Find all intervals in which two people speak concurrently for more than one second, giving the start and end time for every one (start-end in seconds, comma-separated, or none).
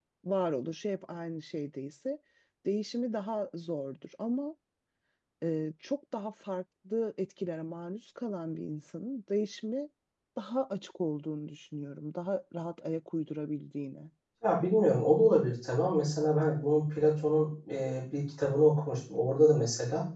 none